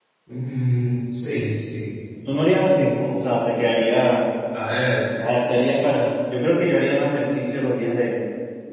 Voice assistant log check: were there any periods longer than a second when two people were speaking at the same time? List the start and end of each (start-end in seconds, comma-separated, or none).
none